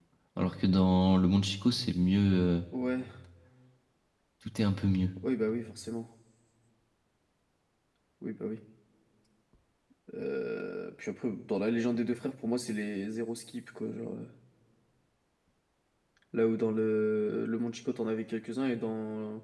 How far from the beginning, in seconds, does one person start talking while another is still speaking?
none

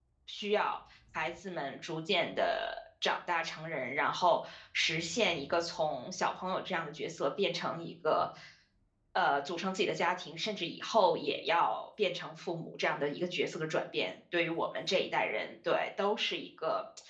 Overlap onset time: none

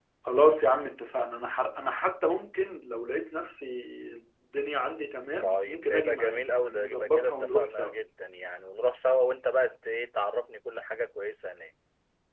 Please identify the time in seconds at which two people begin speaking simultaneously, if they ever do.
5.4 s

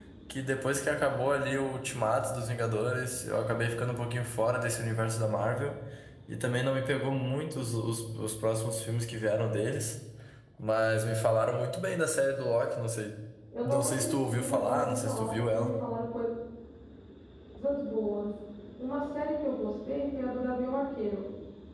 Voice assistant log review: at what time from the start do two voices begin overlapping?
13.6 s

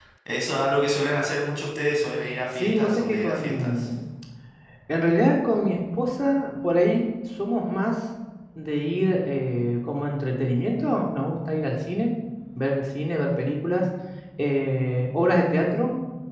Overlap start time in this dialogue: 2.5 s

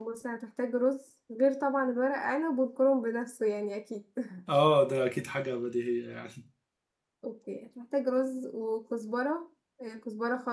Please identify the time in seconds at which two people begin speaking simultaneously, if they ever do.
none

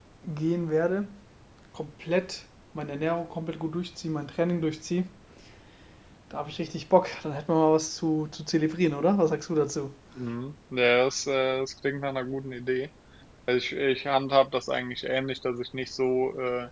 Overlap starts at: none

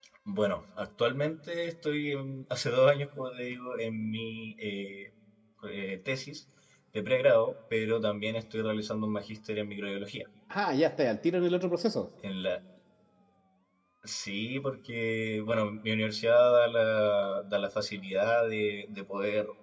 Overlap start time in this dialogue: none

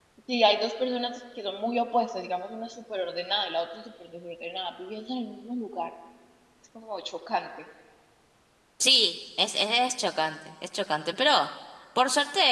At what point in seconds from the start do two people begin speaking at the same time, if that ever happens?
none

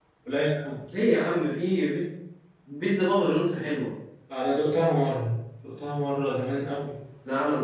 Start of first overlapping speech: none

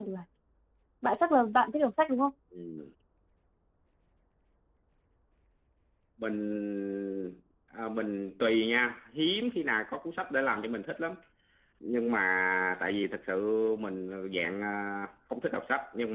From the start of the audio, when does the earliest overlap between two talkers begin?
none

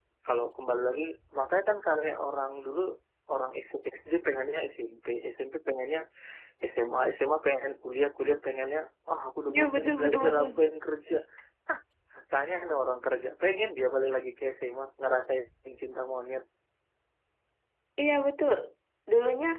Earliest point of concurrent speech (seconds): 9.5 s

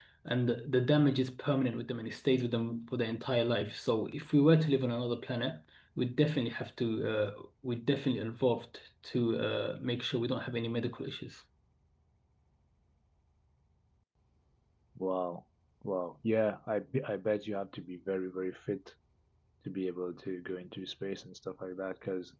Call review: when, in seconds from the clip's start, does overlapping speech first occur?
none

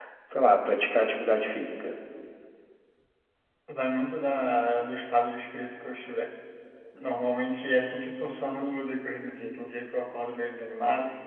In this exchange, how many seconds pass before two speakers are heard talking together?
none

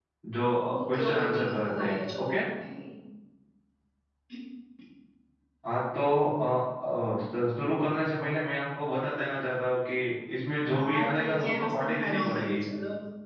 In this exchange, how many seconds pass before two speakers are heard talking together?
0.8 s

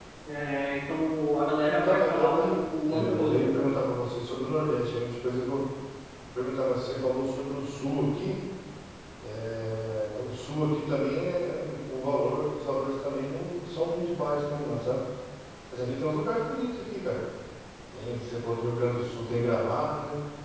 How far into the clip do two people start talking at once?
1.6 s

